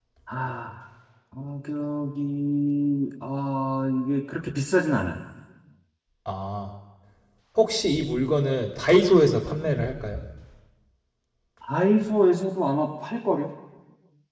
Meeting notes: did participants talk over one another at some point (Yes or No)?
No